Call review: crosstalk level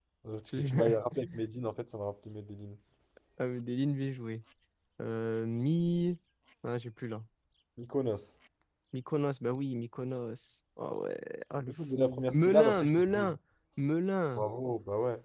present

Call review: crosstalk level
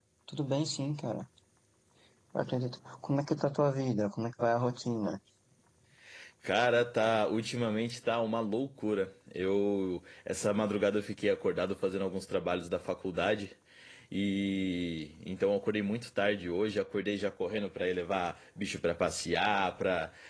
none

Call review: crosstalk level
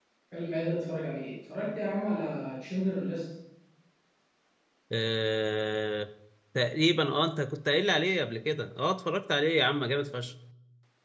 none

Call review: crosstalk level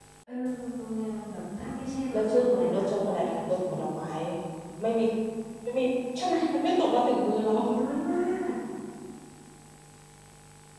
present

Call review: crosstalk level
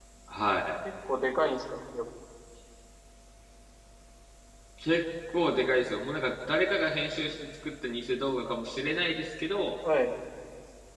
none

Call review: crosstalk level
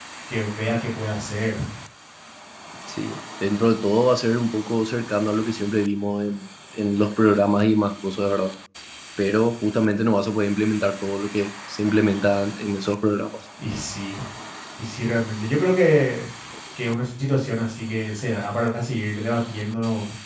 none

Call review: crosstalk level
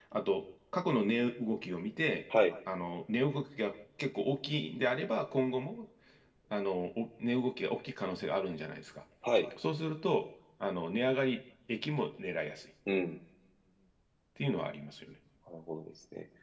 none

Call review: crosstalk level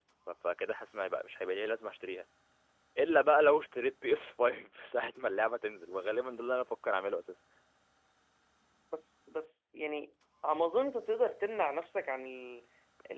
none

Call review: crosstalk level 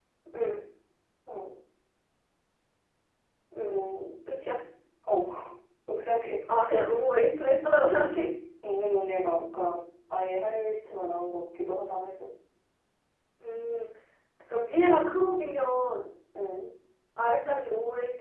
none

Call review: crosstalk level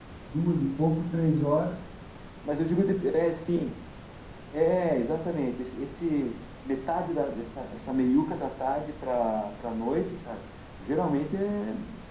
none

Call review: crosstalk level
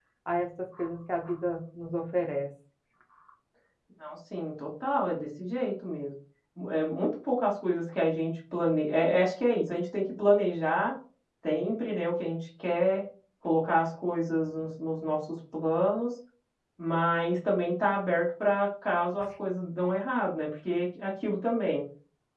none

